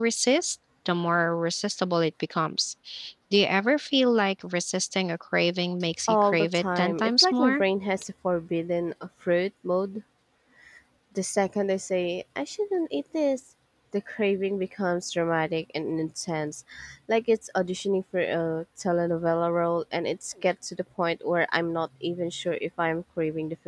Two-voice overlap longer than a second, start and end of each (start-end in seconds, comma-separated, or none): 6.1-7.6